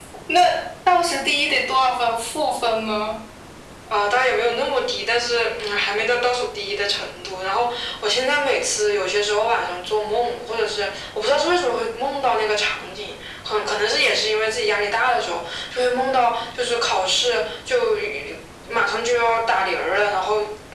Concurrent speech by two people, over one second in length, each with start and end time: none

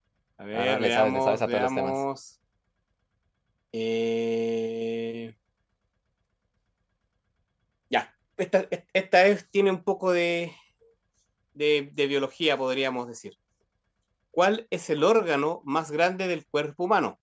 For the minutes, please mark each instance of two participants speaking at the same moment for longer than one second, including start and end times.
0.5-2.0

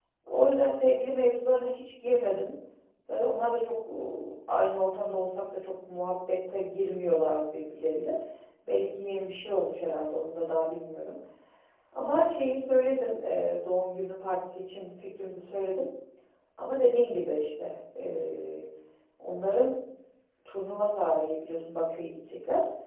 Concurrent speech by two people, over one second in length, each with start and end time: none

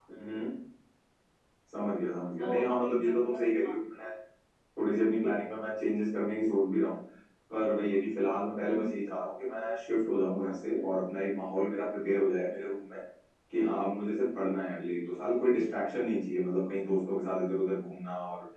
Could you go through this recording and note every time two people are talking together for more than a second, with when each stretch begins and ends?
2.4-3.7

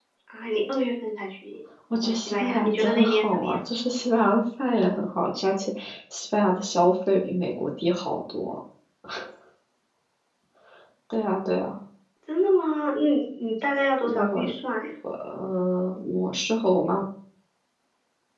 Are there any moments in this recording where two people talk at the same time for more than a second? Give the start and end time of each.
2.0-3.6

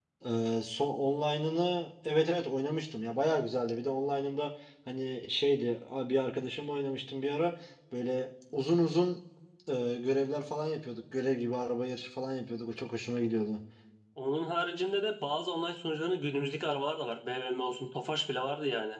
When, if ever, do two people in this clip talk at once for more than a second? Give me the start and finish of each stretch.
none

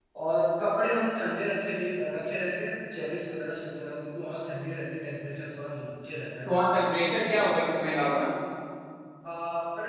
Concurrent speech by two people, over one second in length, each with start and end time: none

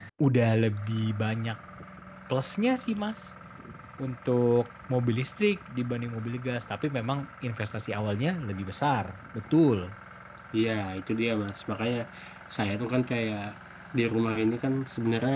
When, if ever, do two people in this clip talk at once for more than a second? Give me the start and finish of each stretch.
none

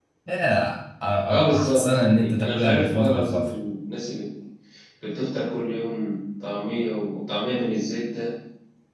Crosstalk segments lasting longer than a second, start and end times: 1.3-3.5

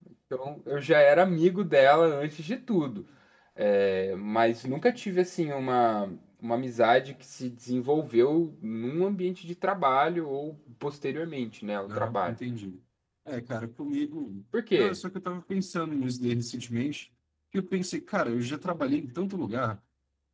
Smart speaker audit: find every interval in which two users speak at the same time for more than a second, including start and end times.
none

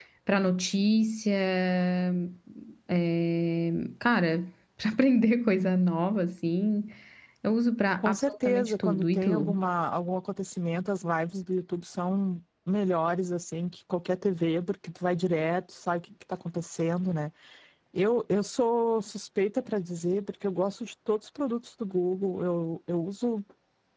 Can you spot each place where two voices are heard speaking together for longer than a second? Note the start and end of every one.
8.0-9.6

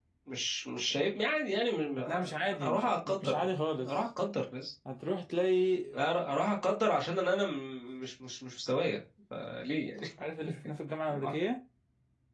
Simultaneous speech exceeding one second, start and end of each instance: 2.1-3.4

